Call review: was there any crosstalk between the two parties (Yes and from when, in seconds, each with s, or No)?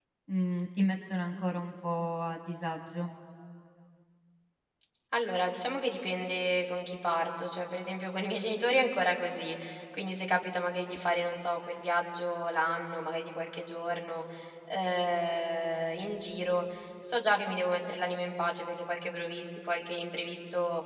No